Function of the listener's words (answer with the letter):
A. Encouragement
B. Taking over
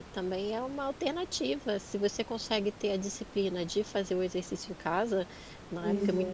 A